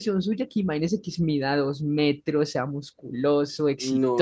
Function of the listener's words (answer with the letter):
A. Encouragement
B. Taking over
B